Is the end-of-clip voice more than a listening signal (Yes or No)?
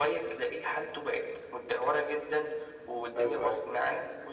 No